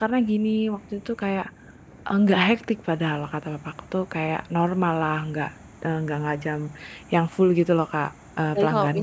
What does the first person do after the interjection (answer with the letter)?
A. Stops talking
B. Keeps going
A